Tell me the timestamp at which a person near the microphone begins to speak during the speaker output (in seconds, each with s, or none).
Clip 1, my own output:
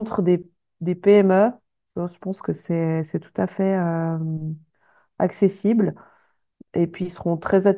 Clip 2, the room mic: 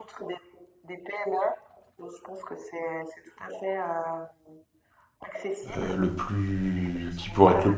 5.8 s